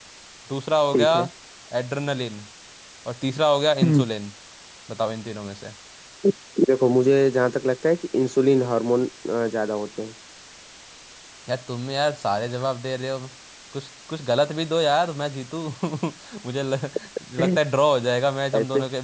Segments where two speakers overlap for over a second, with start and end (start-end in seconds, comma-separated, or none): none